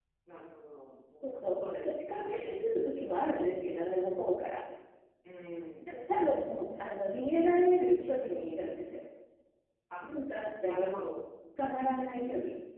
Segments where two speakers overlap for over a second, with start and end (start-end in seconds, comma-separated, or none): 1.3-2.7